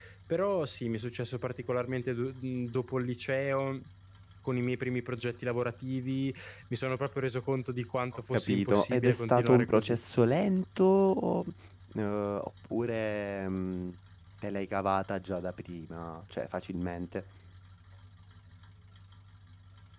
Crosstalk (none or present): present